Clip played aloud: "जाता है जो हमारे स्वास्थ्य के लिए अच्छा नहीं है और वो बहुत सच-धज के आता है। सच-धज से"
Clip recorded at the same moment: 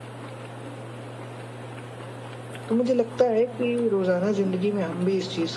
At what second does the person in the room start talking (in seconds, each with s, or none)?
2.7 s